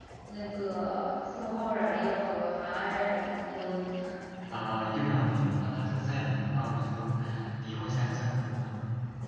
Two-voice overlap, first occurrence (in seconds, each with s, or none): none